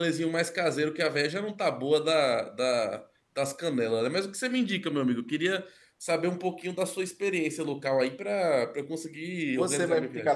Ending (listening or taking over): taking over